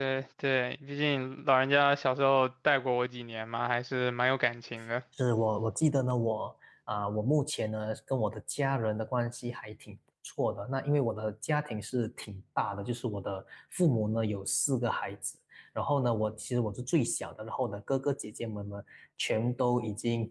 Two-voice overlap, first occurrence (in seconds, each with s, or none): none